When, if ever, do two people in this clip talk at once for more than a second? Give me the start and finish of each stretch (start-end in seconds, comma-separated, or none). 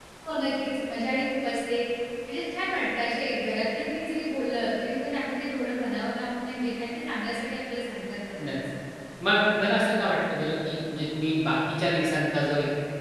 none